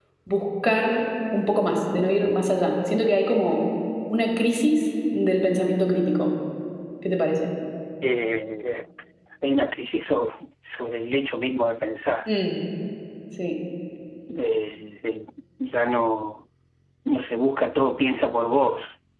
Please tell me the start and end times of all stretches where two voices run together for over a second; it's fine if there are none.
none

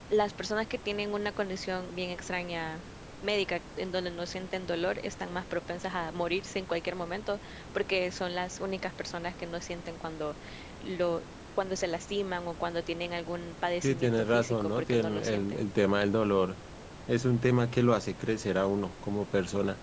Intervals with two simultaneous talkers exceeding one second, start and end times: 13.8-15.6

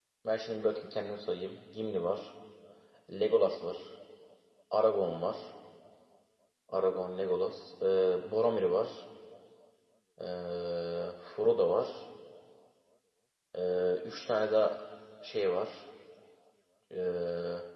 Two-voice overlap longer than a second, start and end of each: none

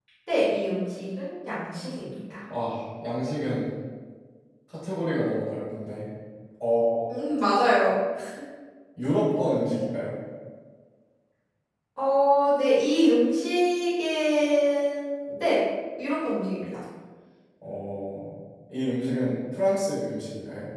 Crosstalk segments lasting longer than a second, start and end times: none

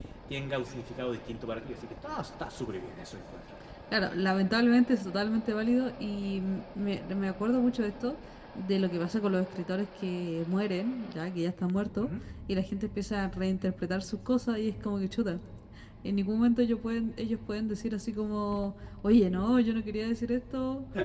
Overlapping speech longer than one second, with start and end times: none

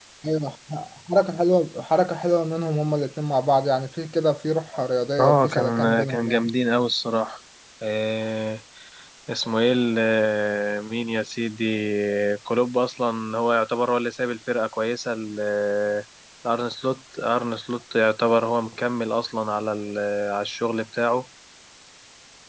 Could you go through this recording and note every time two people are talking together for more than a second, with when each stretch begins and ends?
5.2-6.5

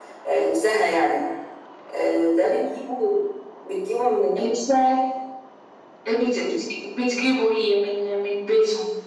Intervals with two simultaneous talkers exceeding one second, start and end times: none

